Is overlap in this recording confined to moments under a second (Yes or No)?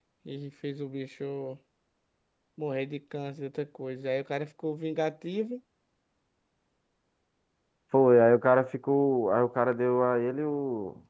Yes